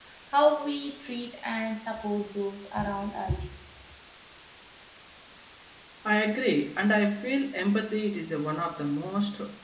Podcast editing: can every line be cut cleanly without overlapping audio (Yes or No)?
Yes